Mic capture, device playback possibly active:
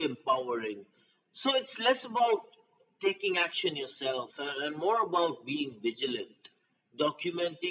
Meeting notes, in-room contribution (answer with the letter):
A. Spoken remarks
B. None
B